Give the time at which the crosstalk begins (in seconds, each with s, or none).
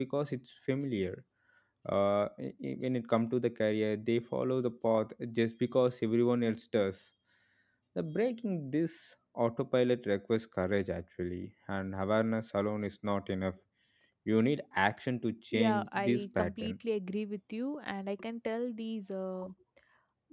15.5 s